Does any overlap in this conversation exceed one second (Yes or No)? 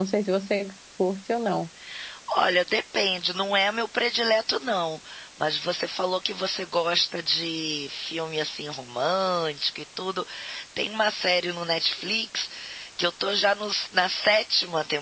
No